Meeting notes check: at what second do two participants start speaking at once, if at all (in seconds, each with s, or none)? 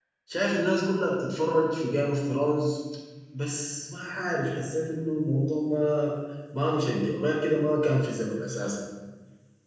none